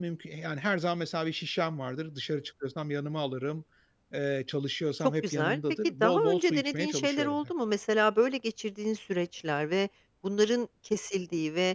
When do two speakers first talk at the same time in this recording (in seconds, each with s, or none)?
5.0 s